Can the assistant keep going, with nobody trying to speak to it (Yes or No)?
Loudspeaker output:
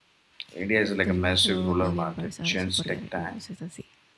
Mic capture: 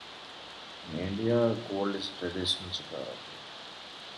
No